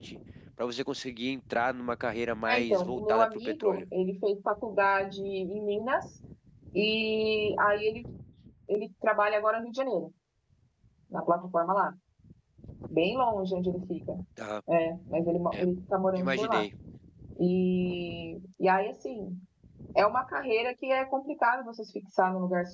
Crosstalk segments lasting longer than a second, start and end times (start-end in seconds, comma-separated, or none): 2.5-3.8